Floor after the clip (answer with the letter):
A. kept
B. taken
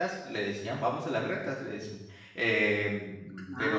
A